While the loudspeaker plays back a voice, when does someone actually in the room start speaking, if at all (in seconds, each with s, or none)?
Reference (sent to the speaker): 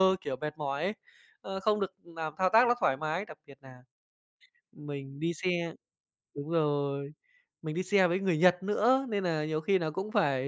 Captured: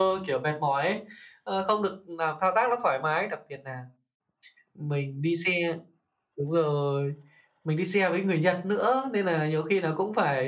none